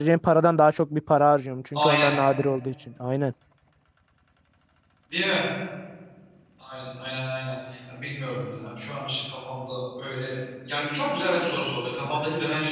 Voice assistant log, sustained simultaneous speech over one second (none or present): none